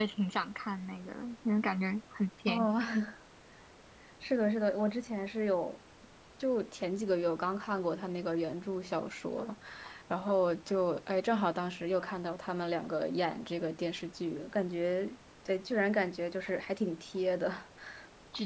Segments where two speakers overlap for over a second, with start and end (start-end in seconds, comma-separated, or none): none